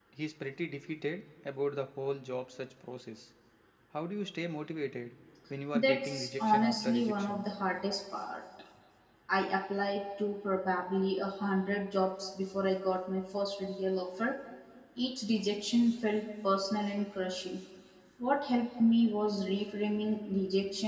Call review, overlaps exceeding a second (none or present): present